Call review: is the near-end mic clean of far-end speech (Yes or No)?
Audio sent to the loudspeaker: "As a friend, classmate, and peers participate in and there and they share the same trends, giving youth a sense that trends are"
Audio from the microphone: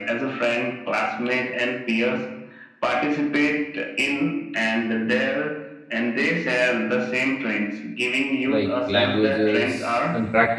No